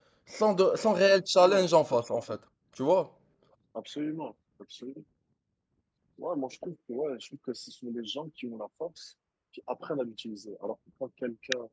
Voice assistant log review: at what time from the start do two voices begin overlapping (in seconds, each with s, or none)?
none